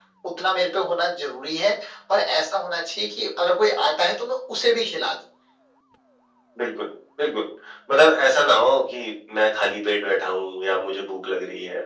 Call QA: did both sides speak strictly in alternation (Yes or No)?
Yes